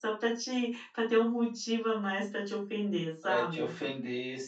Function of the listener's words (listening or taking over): taking over